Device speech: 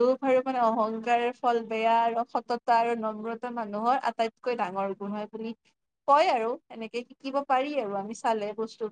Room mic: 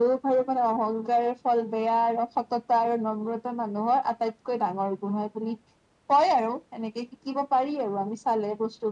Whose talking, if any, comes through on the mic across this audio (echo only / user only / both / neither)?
echo only